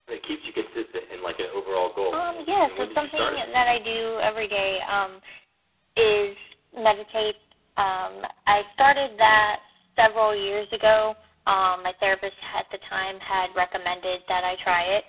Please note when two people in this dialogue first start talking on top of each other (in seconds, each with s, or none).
2.1 s